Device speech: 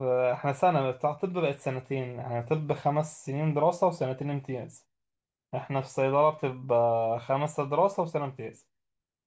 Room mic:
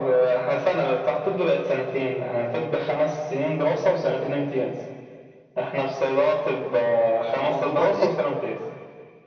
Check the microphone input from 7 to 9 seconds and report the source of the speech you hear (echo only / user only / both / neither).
both